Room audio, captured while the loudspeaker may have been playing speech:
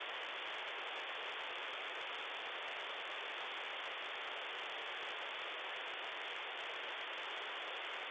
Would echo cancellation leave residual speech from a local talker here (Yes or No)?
No